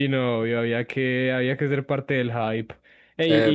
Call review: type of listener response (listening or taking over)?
taking over